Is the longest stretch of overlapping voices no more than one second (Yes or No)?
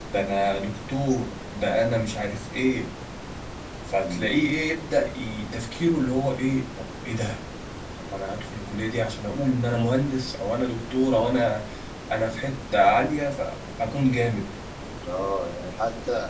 Yes